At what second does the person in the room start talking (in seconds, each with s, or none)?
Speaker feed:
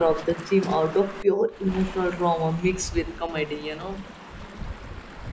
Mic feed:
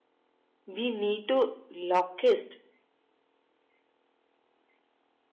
0.7 s